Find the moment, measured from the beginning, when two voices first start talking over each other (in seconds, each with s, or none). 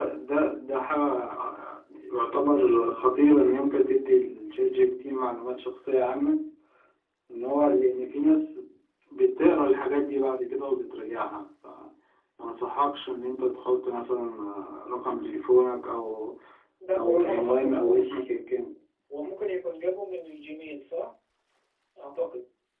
16.9 s